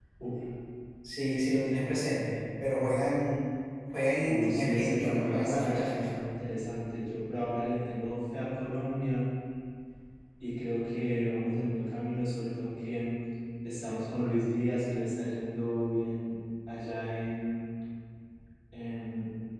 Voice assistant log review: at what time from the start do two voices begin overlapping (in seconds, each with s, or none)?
4.3 s